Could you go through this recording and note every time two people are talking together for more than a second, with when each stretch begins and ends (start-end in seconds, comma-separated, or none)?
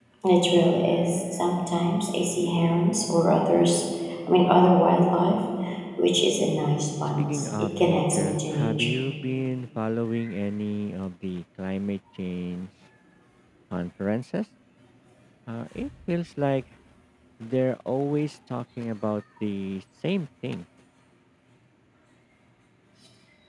7.2-9.0